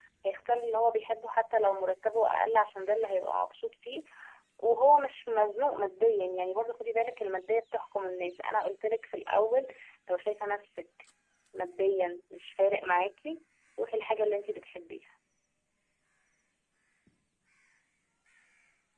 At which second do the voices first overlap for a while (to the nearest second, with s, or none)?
none